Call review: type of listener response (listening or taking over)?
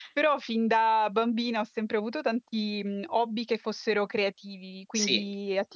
listening